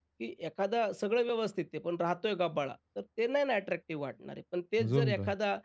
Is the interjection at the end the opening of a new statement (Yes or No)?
No